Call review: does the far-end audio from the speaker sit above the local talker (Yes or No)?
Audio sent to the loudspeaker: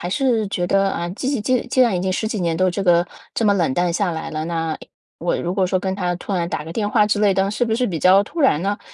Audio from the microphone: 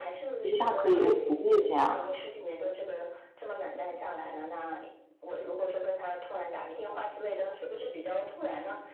No